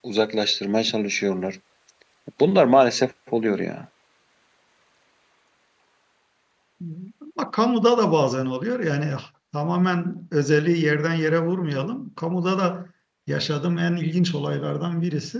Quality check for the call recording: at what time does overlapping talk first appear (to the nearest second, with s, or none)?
none